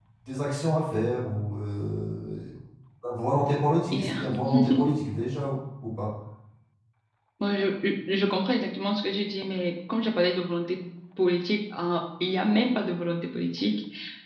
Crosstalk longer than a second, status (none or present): none